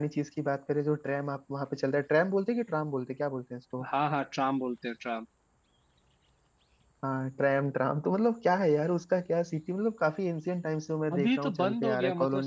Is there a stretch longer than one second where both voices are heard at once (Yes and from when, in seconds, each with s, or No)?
Yes, from 11.1 s